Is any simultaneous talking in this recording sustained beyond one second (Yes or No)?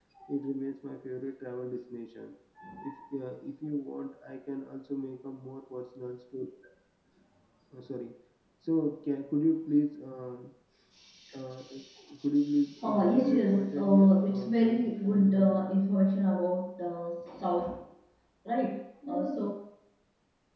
Yes